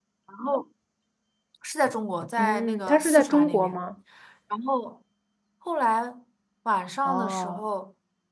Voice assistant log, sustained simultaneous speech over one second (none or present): present